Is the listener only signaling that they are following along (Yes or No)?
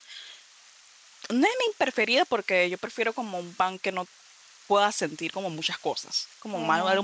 Yes